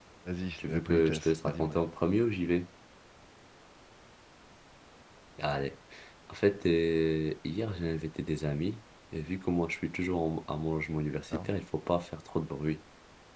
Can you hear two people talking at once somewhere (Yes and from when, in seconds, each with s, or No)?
Yes, from 0.6 s